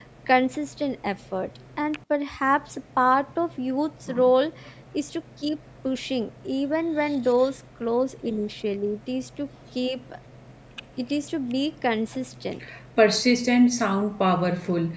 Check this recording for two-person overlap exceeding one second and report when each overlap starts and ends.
none

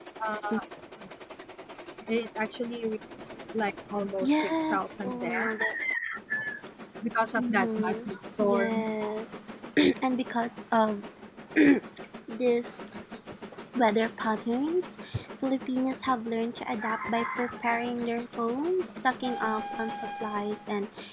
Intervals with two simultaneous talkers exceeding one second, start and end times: 4.2-5.5, 7.3-8.9

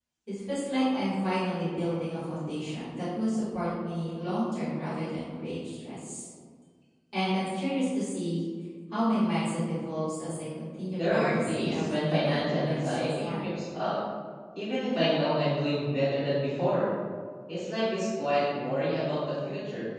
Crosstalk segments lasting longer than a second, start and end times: 11.0-13.5

